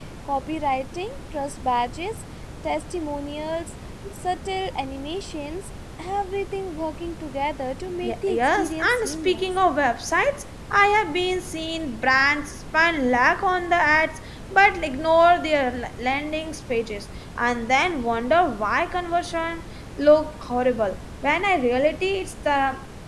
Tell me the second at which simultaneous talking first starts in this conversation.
8.0 s

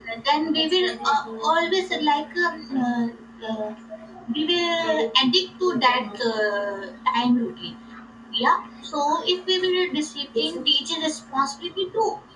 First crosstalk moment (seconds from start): 0.6 s

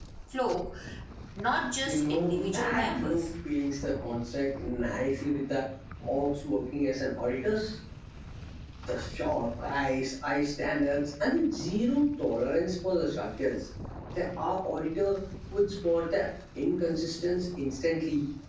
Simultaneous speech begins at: 1.8 s

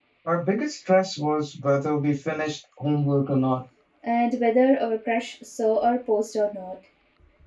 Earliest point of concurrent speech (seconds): none

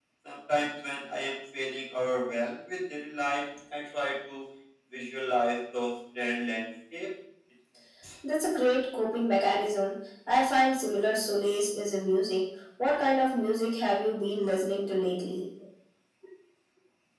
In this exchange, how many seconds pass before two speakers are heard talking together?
none

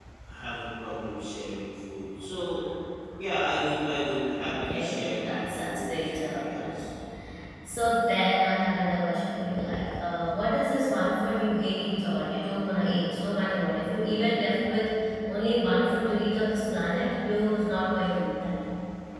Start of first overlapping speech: 4.4 s

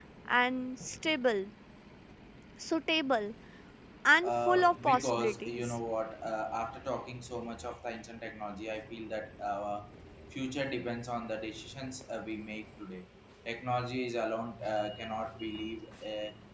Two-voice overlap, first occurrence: 4.2 s

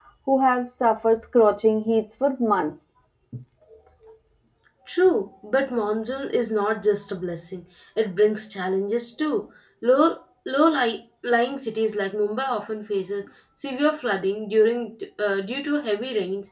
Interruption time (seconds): none

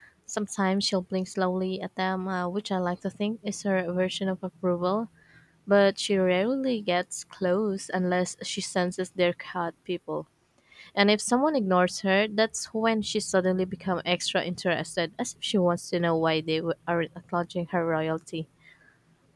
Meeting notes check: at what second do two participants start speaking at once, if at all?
none

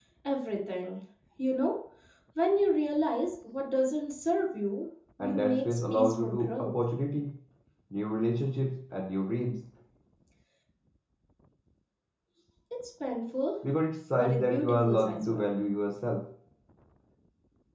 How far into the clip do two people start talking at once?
5.2 s

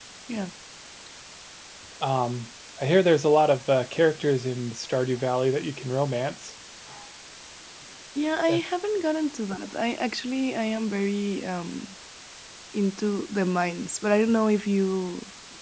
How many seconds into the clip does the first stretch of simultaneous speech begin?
none

